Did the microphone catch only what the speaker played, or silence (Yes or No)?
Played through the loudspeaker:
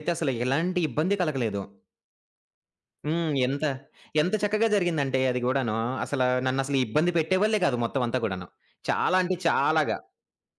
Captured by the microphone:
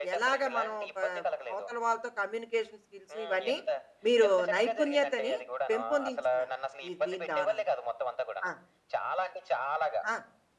No